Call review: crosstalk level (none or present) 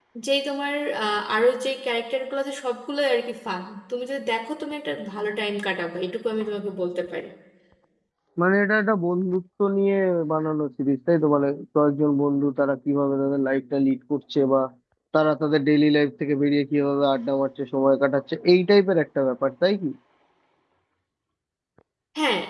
none